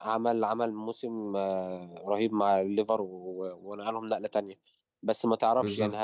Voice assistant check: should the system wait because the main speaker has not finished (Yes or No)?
Yes